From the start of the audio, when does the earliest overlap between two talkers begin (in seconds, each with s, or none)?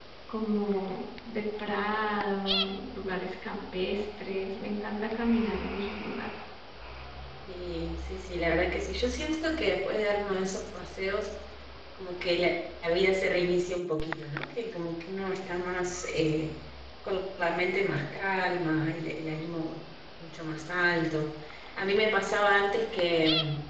none